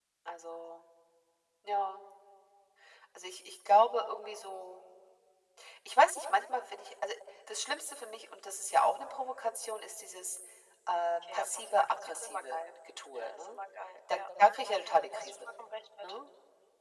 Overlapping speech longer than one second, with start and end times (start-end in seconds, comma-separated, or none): 11.3-12.6